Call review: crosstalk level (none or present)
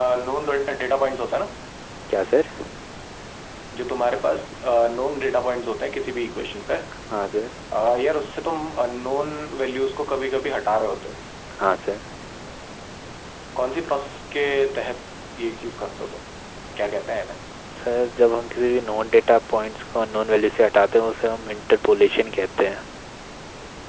none